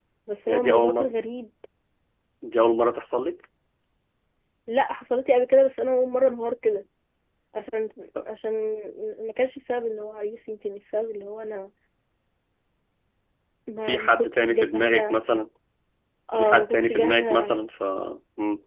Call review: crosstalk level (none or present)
present